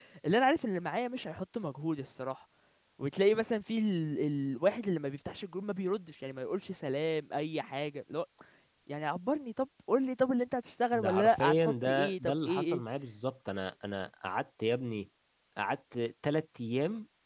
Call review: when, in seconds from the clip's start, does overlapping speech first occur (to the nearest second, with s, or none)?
11 s